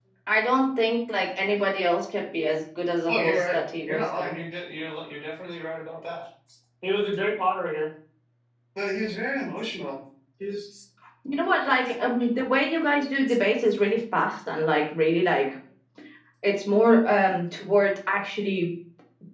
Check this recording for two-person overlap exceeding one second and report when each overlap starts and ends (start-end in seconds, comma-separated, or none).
3.1-4.4